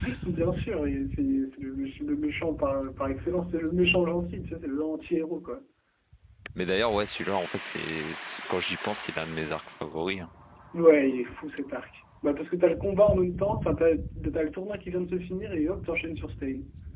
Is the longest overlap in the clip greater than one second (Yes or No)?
No